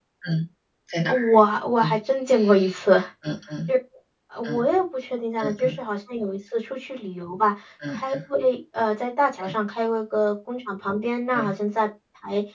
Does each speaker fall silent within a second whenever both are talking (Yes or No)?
Yes